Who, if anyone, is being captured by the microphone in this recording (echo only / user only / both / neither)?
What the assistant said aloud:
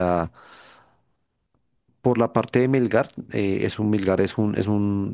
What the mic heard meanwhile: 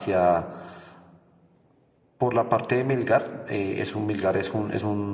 echo only